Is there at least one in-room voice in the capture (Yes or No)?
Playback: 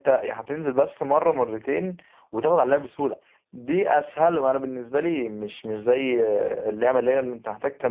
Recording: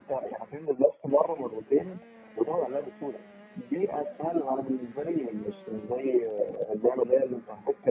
No